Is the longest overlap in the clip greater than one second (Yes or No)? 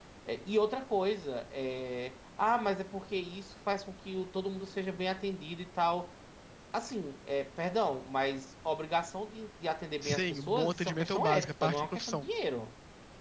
Yes